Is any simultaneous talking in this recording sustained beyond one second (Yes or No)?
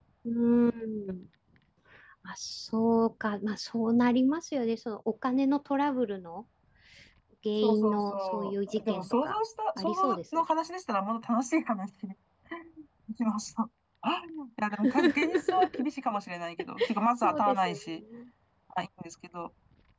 Yes